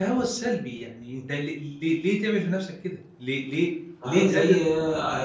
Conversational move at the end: taking over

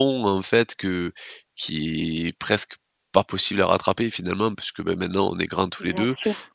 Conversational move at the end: listening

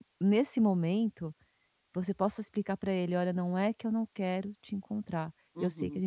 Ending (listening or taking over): listening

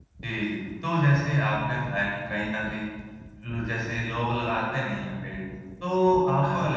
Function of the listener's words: listening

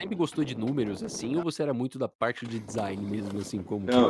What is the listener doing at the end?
taking over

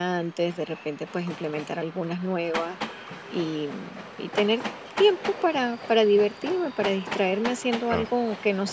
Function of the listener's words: listening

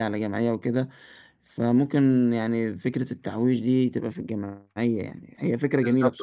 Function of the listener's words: taking over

